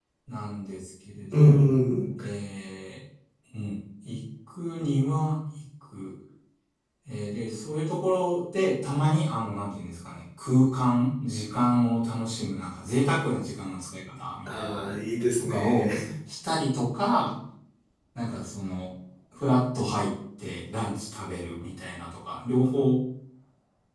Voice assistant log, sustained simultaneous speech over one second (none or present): none